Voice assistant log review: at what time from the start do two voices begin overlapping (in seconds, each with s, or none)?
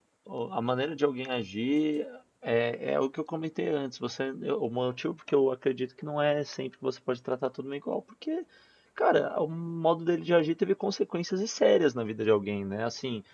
none